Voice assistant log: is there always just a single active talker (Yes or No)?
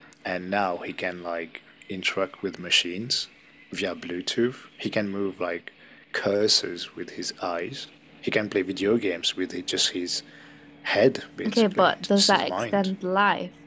No